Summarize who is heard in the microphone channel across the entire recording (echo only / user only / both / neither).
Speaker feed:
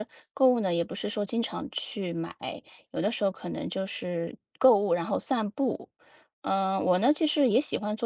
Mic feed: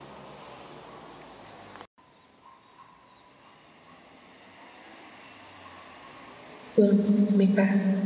user only